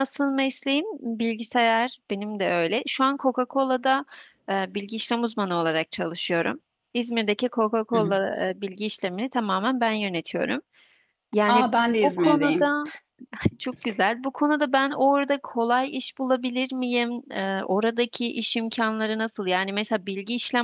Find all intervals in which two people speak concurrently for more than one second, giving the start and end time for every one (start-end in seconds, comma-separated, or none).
11.5-12.7